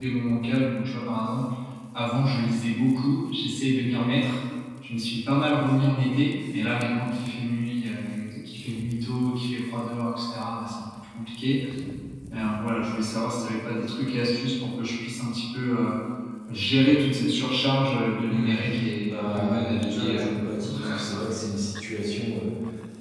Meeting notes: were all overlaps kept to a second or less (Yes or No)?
No